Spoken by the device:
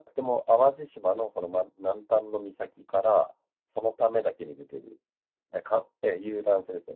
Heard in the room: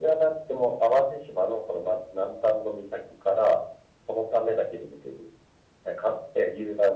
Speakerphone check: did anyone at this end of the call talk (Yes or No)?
No